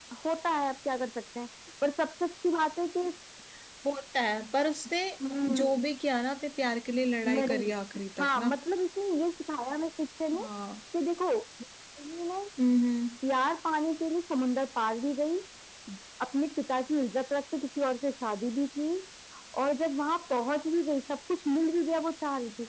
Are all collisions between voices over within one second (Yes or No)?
Yes